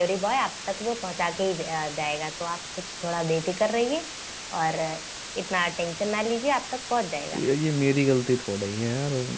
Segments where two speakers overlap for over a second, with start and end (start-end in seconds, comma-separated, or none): none